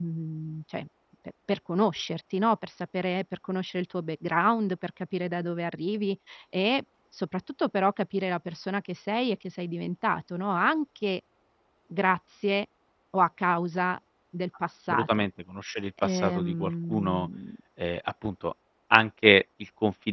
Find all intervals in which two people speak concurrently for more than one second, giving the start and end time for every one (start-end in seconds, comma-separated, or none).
16.0-17.3